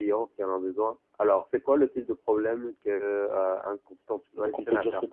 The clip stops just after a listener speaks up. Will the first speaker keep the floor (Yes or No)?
No